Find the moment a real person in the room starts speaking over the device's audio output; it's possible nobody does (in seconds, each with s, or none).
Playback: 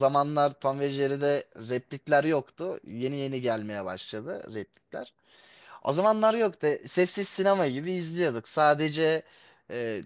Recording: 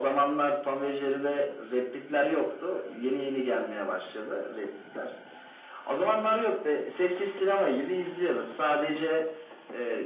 none